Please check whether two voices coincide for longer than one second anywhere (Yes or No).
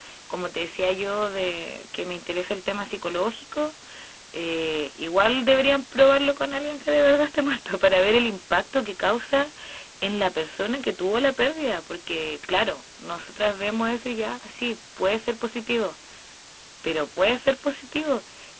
No